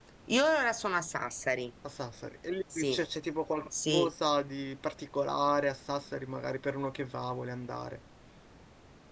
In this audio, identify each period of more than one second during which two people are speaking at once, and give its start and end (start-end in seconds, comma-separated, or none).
none